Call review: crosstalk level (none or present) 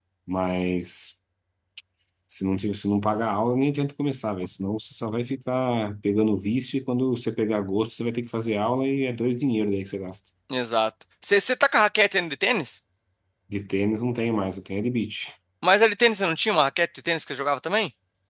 none